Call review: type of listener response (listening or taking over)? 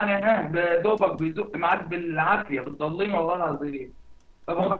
taking over